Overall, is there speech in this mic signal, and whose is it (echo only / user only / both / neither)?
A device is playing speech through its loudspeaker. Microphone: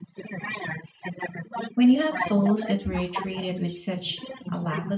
both